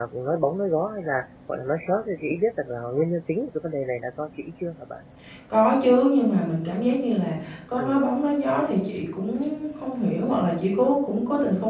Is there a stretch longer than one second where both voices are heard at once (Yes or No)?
No